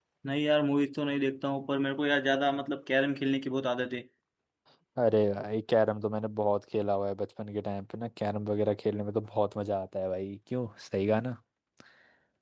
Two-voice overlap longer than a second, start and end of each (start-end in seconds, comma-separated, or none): none